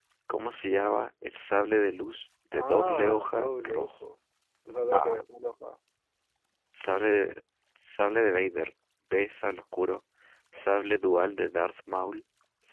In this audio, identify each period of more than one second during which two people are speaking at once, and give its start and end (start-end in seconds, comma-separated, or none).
2.5-4.1